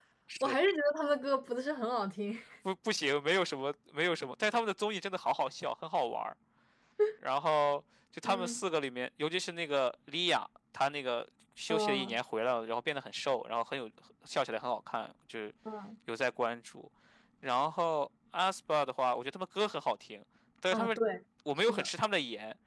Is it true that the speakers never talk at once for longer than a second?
Yes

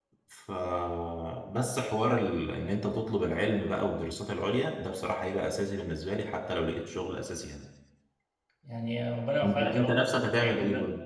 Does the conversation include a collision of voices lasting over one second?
Yes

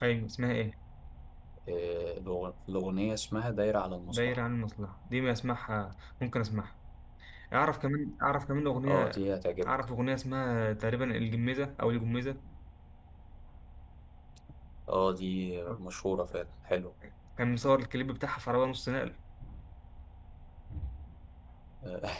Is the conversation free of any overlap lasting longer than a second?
Yes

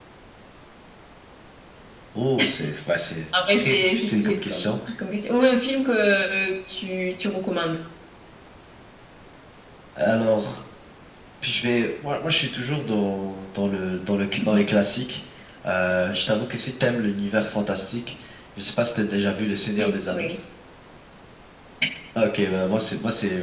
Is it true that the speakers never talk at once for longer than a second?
No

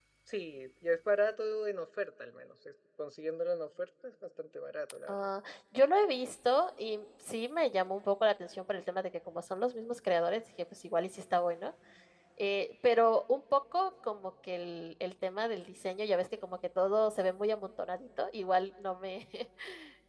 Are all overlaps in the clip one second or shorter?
Yes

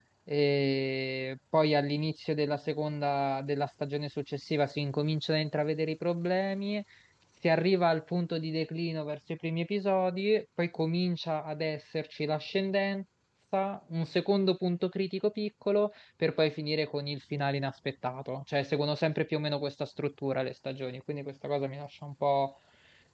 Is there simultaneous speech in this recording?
No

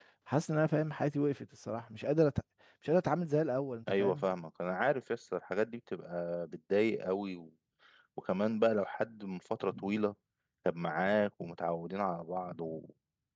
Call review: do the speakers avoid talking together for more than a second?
Yes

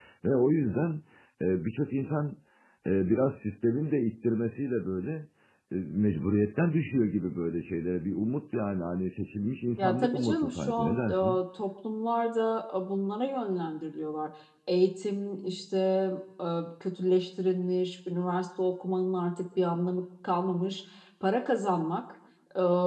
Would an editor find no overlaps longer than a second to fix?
No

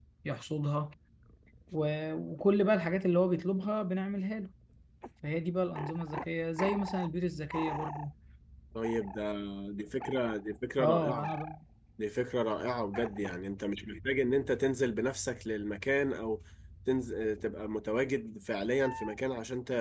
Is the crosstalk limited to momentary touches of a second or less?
Yes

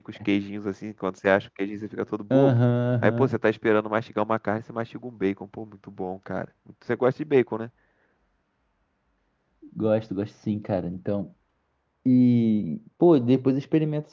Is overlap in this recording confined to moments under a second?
Yes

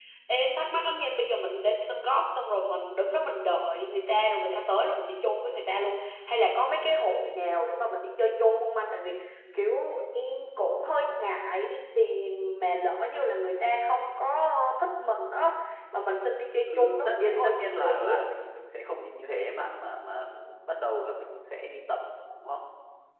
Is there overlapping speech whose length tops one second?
Yes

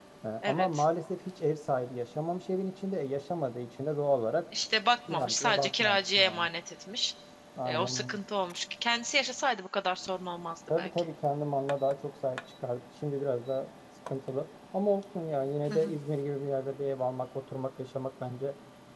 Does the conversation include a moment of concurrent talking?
Yes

